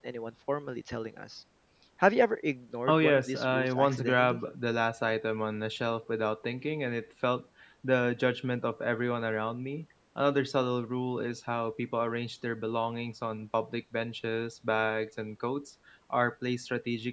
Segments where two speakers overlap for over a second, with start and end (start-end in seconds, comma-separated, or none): 2.9-4.4